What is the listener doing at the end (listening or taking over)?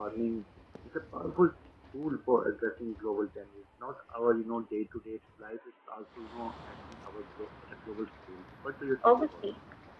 taking over